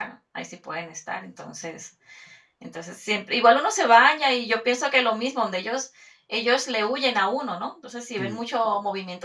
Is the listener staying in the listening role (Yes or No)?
Yes